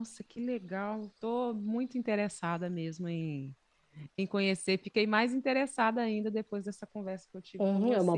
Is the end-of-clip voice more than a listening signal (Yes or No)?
Yes